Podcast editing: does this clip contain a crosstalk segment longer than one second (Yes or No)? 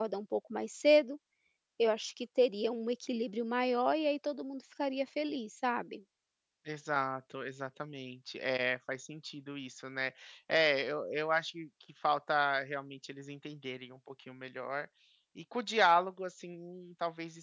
No